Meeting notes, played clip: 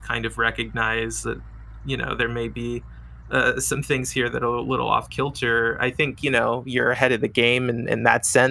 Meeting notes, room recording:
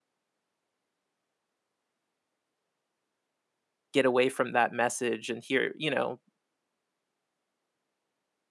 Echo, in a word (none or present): none